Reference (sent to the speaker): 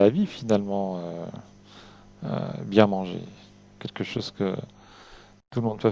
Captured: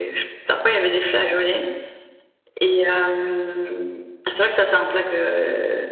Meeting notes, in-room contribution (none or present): present